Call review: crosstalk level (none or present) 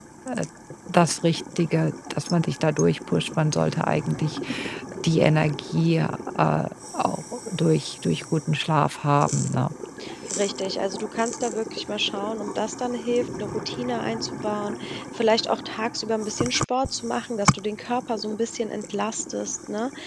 none